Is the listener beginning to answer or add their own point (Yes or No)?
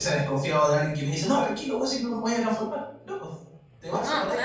Yes